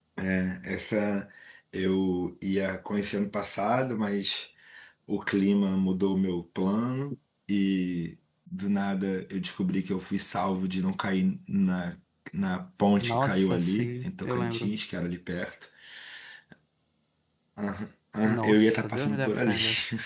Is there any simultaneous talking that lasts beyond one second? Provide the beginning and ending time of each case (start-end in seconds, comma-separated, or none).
13.0-14.7, 18.2-19.5